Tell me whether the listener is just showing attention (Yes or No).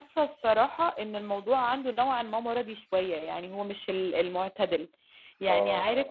Yes